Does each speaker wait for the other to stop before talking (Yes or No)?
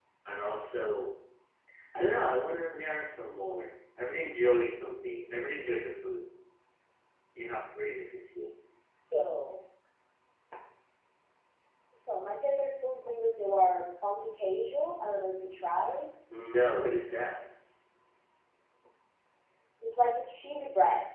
Yes